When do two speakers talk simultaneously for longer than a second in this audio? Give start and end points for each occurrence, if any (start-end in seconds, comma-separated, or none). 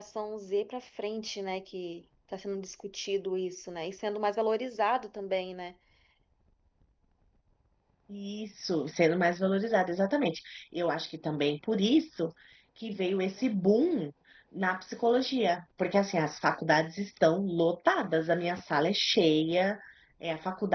none